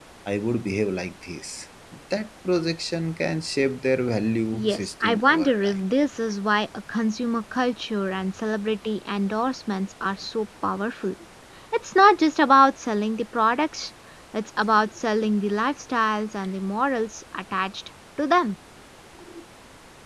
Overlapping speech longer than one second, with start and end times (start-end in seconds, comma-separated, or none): 4.5-5.8